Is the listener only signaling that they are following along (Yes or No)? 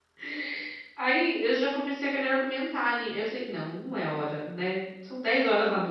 Yes